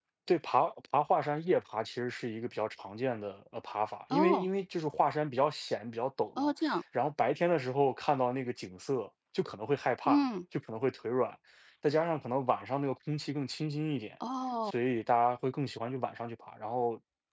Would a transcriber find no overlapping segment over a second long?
Yes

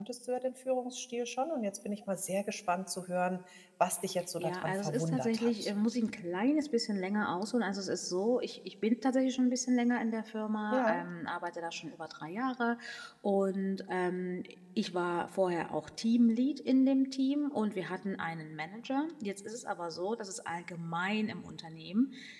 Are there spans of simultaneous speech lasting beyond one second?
Yes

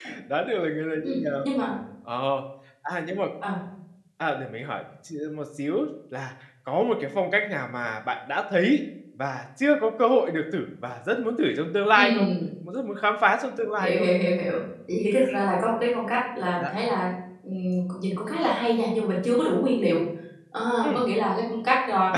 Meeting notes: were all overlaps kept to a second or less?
Yes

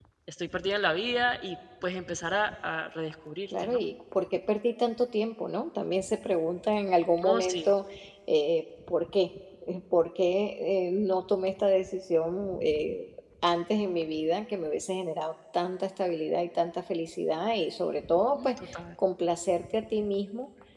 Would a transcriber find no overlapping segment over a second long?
Yes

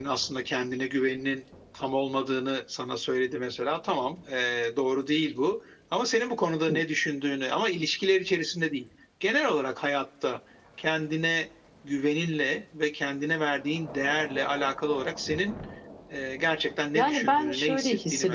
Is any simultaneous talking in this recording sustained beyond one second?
Yes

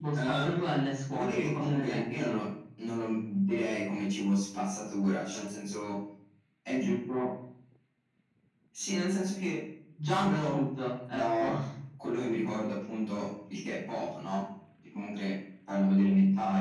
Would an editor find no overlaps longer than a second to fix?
No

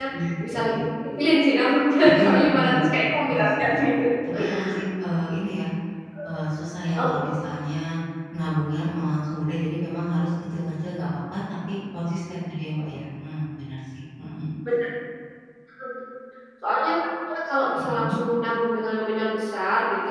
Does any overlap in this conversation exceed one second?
Yes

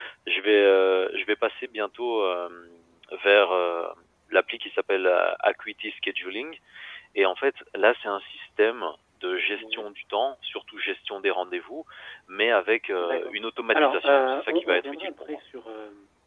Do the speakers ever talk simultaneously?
Yes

